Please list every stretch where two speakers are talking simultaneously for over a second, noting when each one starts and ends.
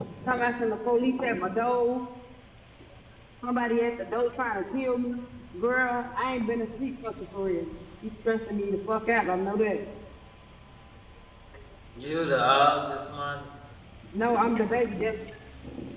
none

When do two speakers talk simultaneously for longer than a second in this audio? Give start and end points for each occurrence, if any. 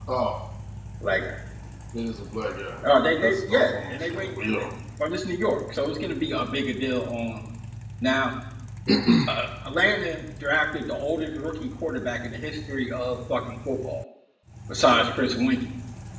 3.2-4.6

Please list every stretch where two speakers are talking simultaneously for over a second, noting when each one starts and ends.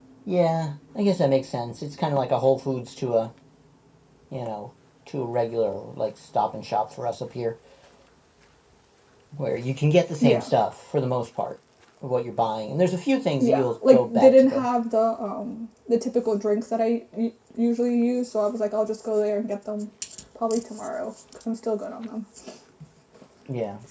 13.4-14.7

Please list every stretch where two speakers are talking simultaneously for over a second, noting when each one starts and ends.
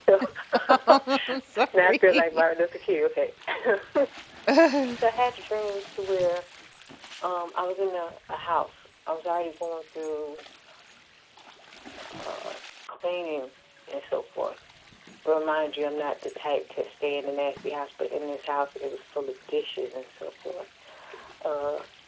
0.7-2.4

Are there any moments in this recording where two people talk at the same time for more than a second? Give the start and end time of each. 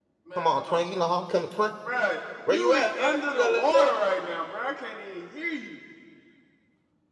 2.5-3.9

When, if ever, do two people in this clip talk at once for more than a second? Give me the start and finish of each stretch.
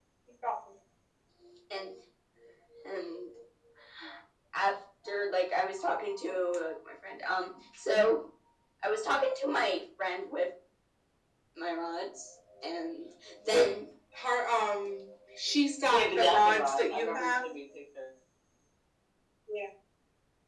15.8-17.4

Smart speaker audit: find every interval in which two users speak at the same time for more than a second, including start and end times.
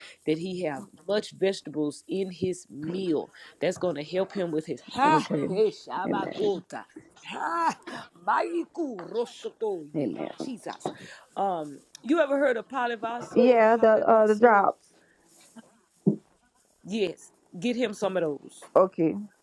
13.3-14.6

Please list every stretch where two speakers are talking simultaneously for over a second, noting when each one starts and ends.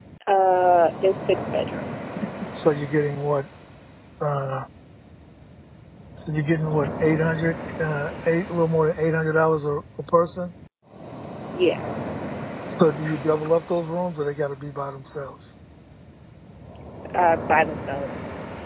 none

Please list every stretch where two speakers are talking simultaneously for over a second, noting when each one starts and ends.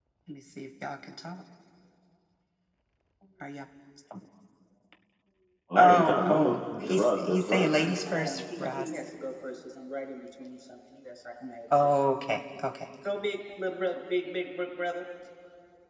5.8-9.0

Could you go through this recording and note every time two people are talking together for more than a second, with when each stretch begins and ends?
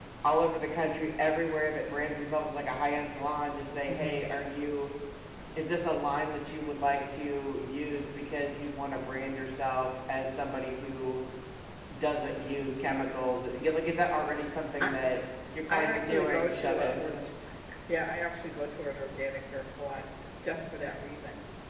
15.7-17.2

